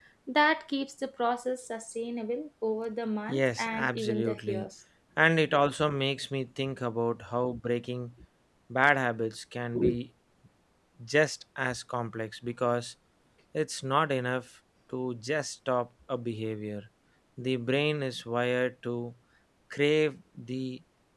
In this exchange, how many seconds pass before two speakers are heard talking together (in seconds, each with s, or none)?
3.3 s